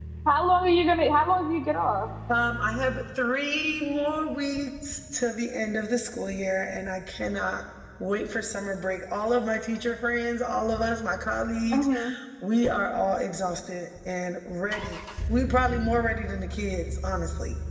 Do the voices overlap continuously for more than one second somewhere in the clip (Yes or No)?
No